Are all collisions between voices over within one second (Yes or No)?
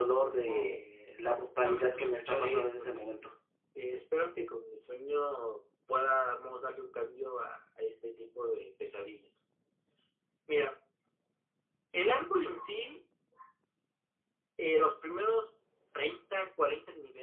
No